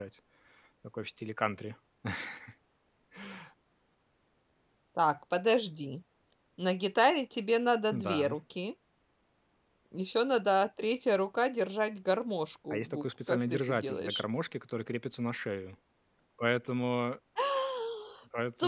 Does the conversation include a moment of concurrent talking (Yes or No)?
Yes